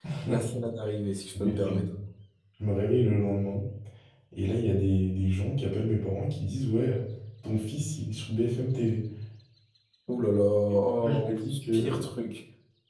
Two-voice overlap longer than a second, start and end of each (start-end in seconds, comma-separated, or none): 10.7-12.0